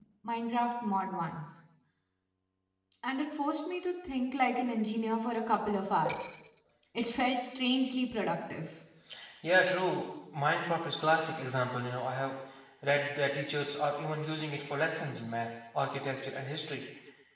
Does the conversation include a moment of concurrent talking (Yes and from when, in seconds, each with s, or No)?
No